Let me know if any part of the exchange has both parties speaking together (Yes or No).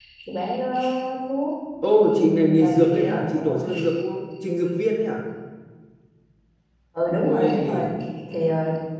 Yes